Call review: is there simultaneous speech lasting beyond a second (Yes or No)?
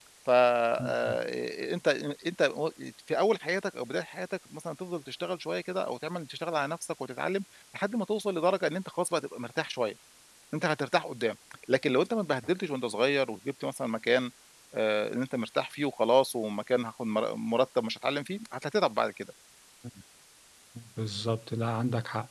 No